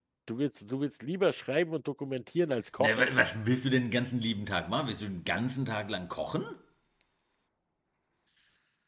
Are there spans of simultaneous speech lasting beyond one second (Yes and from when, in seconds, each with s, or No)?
No